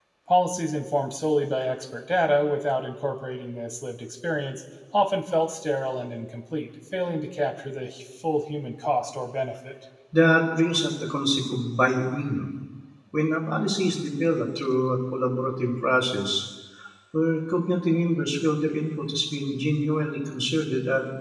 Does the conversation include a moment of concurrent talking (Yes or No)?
No